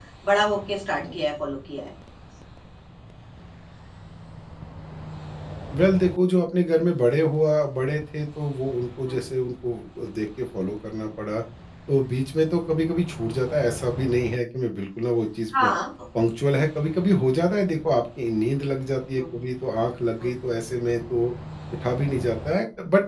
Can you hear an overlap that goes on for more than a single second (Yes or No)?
No